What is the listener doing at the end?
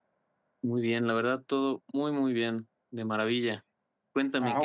taking over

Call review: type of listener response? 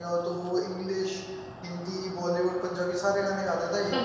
taking over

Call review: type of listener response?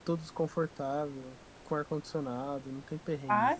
taking over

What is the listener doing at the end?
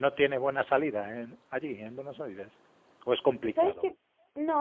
taking over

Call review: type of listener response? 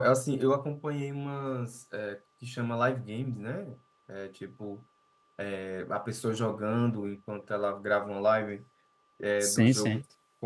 listening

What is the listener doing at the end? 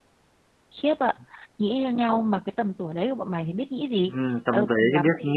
taking over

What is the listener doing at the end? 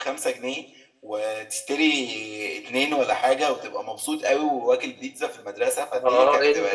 taking over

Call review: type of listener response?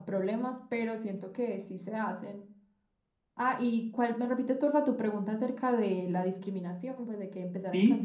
taking over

